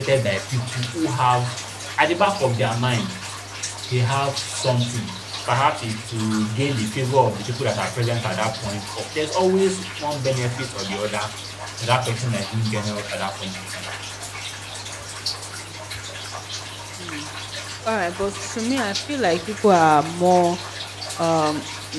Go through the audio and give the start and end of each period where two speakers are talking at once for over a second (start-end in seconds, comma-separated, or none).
none